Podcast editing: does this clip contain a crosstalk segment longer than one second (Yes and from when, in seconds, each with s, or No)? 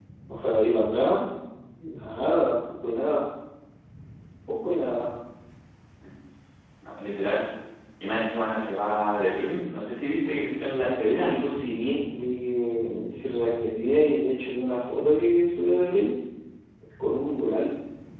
No